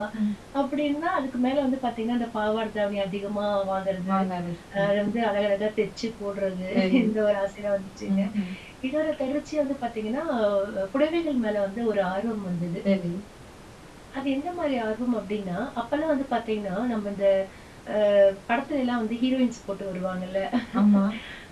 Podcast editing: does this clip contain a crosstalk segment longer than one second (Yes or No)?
No